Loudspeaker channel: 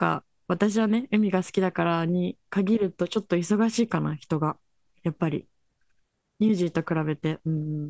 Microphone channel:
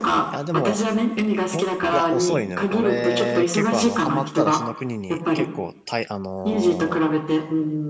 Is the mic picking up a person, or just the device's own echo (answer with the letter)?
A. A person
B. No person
A